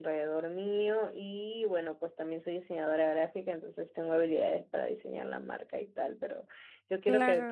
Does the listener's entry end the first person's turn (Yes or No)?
No